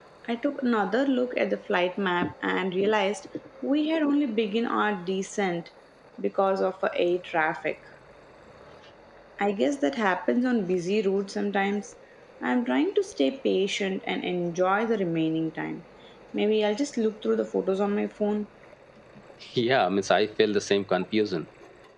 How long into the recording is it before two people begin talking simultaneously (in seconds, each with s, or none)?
none